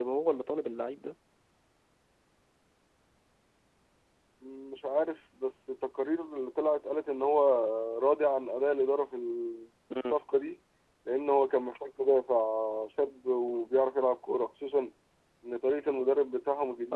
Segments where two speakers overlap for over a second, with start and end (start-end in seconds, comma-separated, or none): none